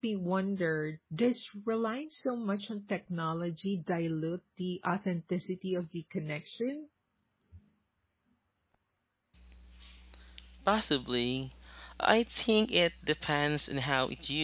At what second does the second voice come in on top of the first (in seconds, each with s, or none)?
none